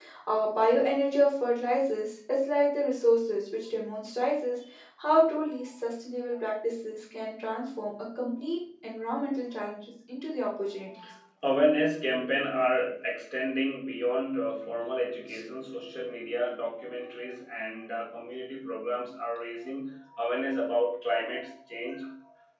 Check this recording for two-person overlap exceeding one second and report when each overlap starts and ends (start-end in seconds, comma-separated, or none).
none